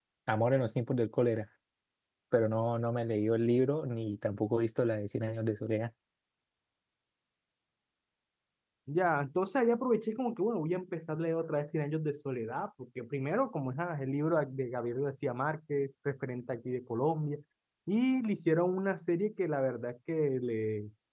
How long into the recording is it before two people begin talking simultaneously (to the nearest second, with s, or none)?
none